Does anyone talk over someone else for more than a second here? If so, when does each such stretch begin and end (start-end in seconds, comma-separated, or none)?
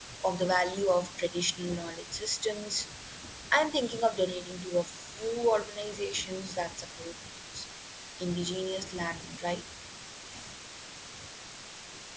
none